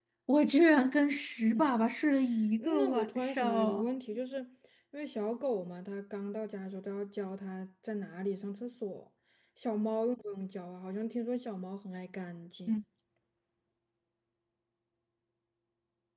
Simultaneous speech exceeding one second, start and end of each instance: 2.6-4.0

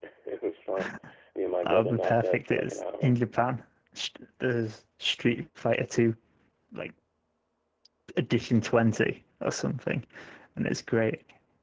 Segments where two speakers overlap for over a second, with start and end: 1.6-3.1

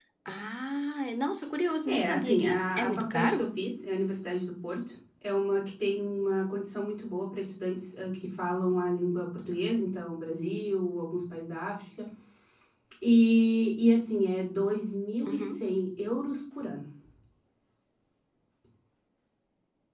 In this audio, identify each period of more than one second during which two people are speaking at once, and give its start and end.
1.9-3.5

